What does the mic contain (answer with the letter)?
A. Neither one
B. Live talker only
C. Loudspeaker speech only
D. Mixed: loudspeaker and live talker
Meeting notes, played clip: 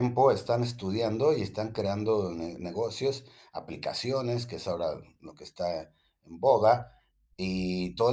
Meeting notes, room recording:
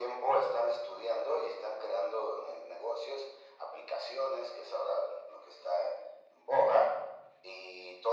C